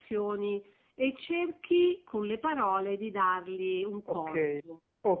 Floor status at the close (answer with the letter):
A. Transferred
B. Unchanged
A